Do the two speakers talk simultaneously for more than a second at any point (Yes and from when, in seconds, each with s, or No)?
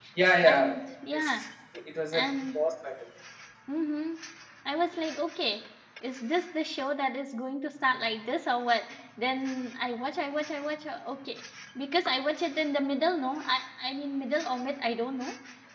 No